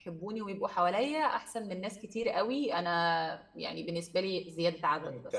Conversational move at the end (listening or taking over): taking over